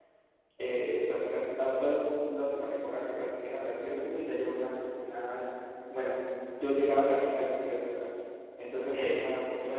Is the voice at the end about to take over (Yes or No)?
No